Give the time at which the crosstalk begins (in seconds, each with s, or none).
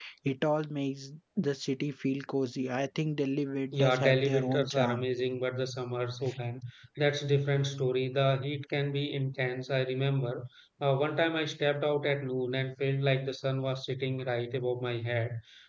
3.7 s